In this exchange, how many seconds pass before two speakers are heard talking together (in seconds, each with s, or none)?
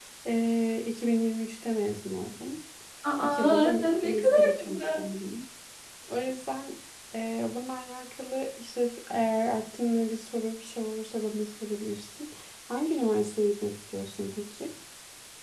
3.2 s